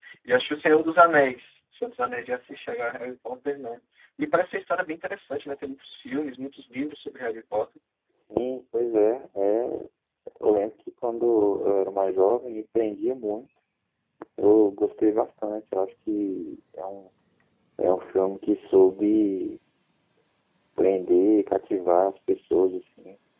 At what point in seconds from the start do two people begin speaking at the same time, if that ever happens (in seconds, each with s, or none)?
none